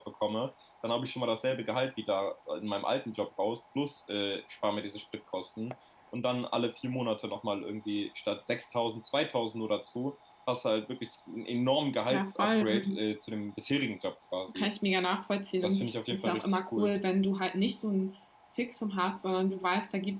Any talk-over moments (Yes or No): Yes